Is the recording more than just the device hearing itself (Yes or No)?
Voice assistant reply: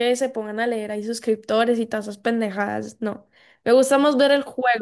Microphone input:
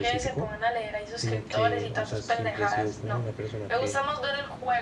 Yes